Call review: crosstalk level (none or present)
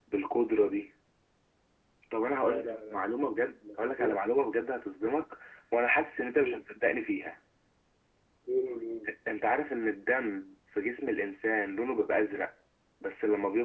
present